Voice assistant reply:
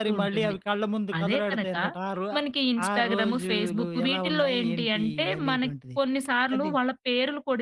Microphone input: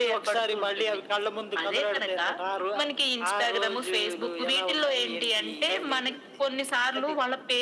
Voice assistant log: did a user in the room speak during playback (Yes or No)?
No